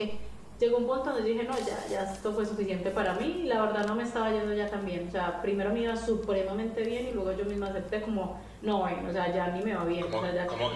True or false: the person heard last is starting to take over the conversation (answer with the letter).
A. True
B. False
A